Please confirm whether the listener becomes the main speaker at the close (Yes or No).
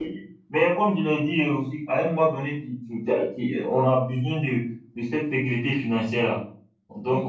Yes